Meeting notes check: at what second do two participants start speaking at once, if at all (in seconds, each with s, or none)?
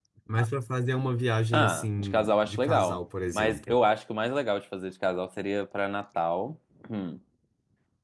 1.5 s